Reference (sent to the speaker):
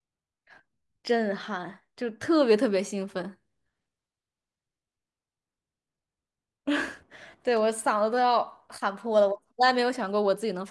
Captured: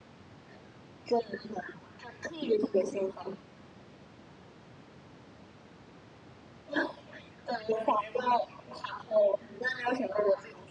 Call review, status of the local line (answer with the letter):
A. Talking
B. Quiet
B